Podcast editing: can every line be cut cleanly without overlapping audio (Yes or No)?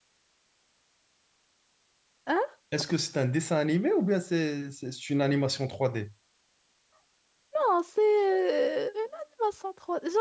Yes